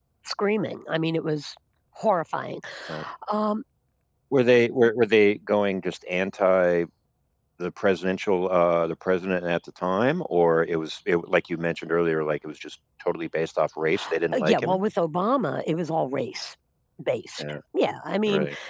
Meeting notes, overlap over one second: none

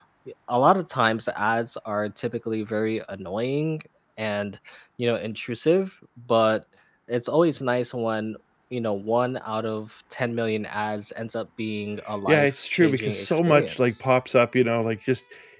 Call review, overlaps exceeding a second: present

